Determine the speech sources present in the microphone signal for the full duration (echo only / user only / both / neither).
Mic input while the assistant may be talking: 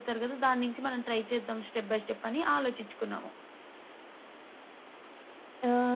echo only